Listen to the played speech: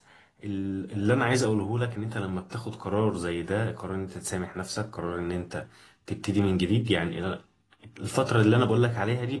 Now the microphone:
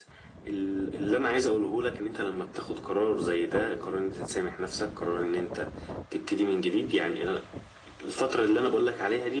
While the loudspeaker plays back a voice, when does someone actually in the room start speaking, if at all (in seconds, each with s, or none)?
none